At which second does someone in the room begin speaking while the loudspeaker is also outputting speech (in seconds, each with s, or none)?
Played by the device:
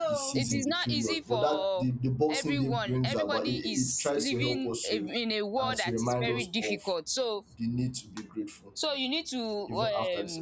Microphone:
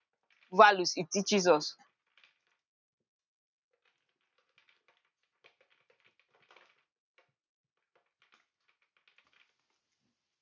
0.5 s